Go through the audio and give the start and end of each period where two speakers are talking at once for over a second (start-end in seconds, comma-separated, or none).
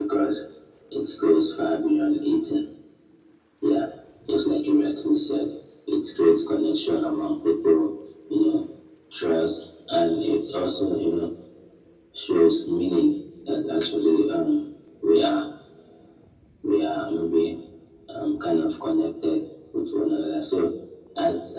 none